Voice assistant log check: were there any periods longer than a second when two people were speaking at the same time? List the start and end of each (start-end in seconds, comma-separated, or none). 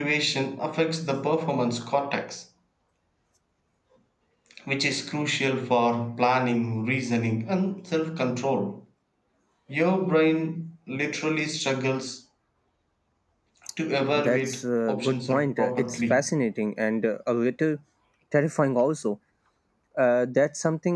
14.2-16.3